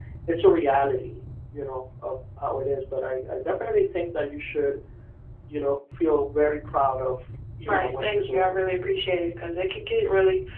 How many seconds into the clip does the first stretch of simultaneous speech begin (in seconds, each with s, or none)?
7.6 s